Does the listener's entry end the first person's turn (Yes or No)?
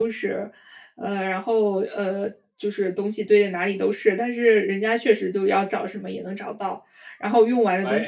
No